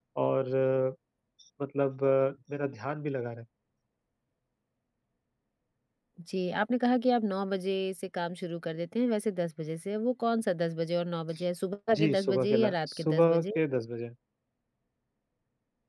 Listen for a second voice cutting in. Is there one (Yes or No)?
Yes